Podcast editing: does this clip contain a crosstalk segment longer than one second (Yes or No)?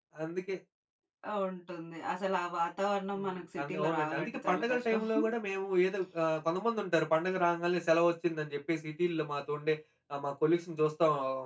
Yes